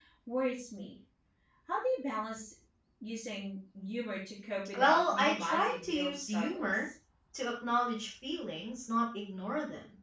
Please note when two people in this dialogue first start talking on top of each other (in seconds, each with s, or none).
4.7 s